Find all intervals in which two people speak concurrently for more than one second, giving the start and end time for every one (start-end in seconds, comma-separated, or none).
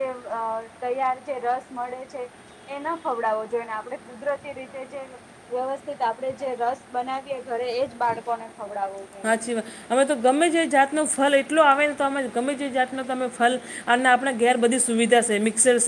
none